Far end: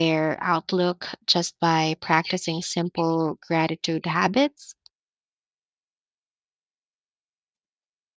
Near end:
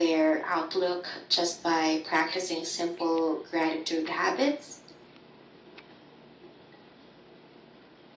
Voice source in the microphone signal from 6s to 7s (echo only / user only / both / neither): neither